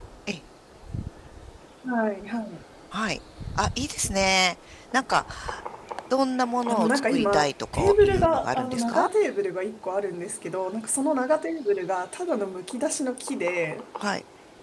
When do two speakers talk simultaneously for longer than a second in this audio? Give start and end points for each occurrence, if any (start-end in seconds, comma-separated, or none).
6.7-9.1